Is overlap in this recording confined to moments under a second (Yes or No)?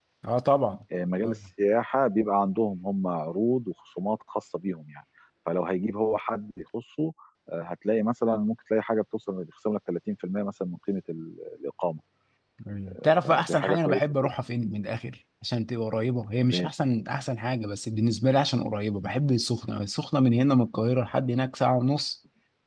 No